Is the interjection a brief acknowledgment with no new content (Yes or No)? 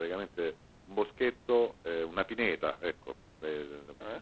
Yes